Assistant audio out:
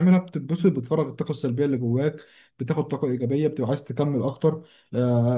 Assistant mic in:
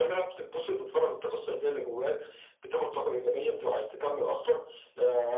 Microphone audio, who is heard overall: echo only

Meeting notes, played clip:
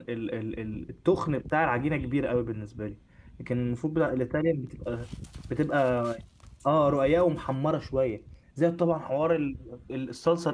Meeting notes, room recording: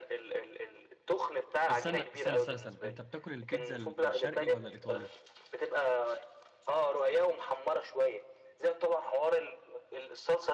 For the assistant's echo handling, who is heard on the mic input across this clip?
both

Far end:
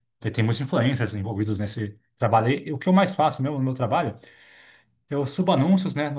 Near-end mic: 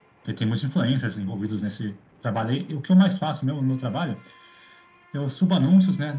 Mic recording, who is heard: echo only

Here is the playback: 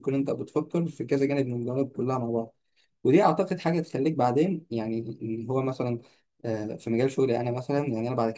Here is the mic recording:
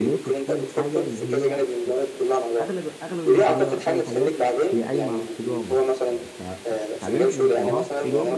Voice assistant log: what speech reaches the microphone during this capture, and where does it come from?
both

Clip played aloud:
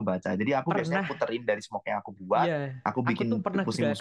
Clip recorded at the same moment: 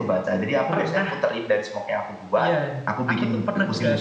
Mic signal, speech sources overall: echo only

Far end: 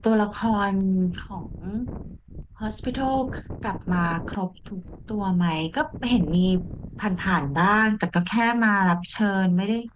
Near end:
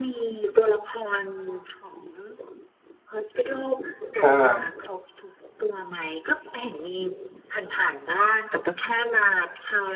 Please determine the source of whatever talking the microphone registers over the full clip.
both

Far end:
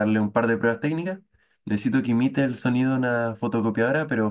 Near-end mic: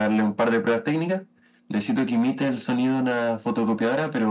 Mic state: echo only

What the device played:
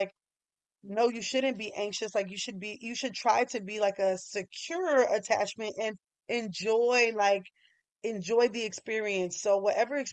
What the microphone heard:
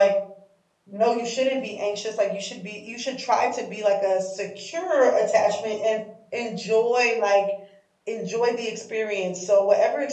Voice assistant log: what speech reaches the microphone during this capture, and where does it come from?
echo only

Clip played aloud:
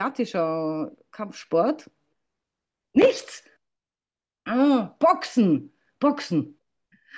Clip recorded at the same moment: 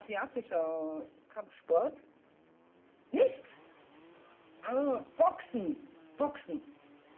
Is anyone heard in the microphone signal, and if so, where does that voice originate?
echo only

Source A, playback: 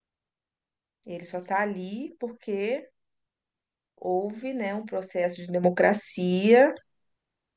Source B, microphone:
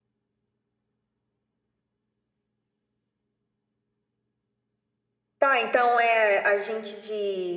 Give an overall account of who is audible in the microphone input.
user only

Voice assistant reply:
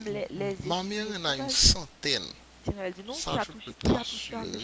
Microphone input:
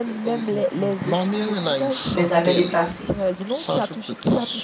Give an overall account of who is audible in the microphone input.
both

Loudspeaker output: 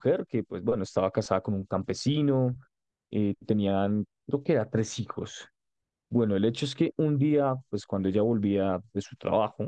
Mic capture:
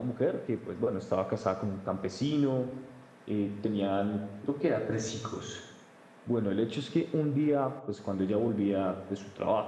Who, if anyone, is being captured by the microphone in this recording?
echo only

